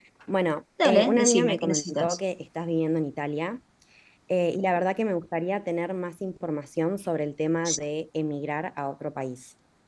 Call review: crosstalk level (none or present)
present